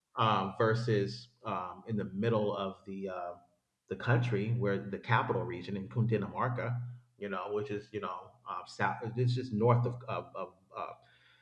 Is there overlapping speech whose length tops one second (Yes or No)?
No